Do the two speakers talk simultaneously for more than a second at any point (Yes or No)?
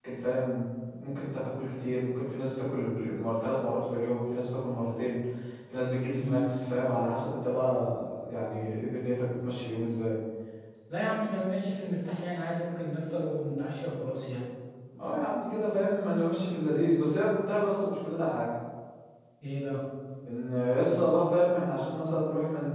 No